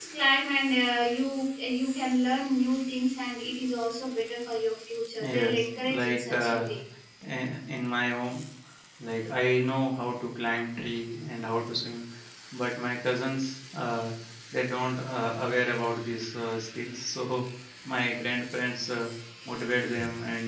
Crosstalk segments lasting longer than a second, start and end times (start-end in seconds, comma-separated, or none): 5.3-6.7